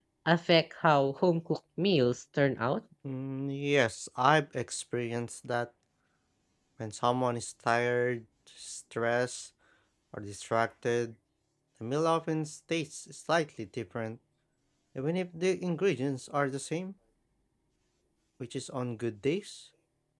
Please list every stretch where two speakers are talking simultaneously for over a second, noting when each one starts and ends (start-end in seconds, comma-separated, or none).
none